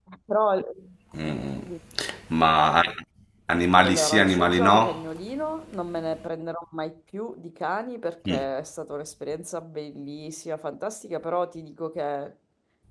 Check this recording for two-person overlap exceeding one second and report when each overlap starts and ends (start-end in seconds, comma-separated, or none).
3.8-5.0